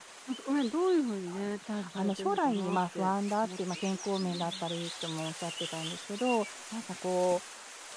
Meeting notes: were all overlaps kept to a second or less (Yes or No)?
No